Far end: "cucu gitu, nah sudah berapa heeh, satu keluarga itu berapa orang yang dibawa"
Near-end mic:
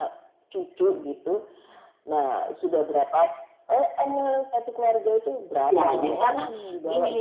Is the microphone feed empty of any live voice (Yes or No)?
No